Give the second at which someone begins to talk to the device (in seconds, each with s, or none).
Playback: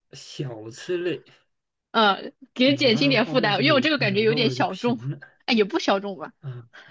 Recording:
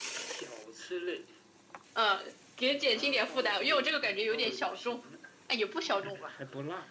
5.9 s